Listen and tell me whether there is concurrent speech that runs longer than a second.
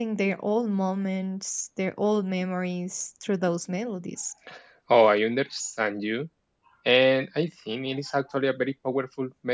No

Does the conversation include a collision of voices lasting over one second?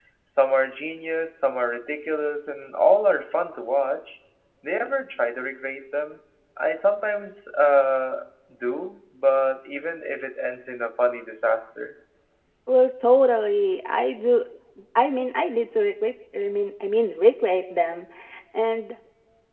No

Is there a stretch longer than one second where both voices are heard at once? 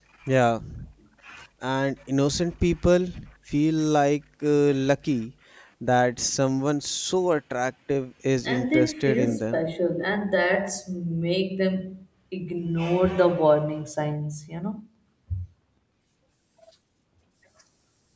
Yes, from 8.4 s

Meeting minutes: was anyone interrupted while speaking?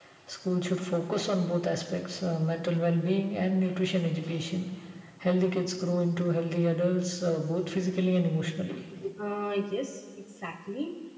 No

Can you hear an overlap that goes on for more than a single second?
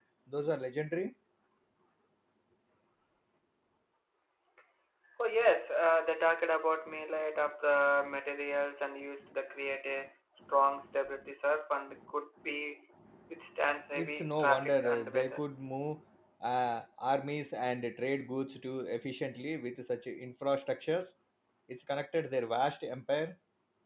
Yes, from 13.9 s

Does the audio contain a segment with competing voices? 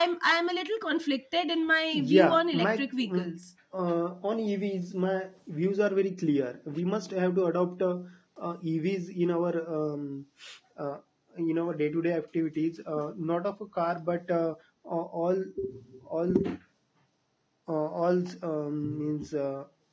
Yes, from 1.9 s

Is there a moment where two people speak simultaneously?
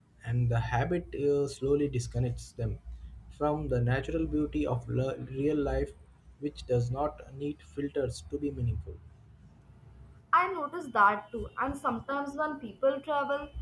No

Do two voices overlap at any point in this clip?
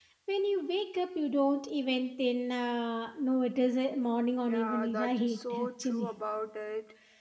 Yes, from 4.5 s

